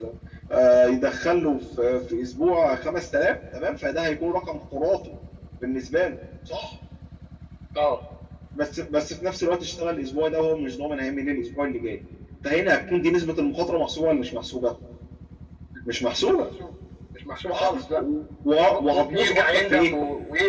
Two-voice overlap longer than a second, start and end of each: 18.7-19.9

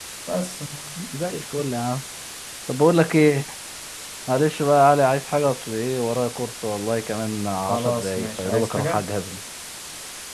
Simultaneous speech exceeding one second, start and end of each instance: 7.7-9.1

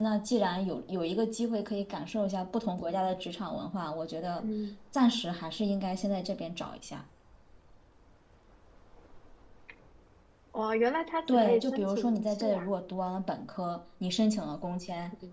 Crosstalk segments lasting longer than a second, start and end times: 11.3-12.7

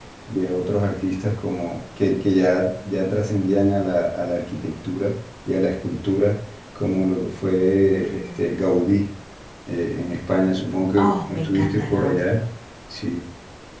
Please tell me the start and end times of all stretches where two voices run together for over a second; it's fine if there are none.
11.0-12.3

